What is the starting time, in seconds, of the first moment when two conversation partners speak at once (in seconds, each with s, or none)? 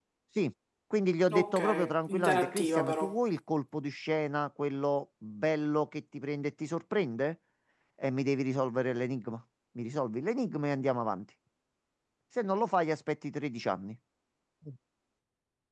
1.3 s